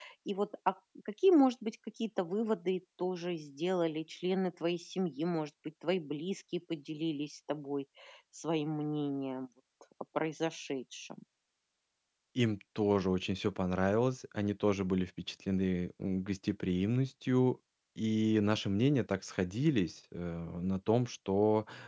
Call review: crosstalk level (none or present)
none